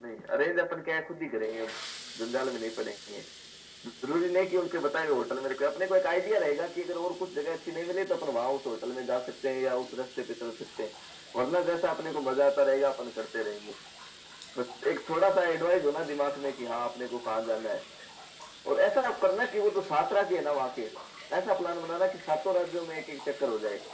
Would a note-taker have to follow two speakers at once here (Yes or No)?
No